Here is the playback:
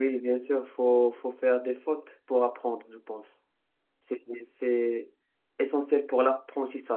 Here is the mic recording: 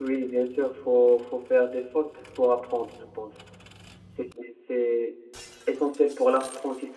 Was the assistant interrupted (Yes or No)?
No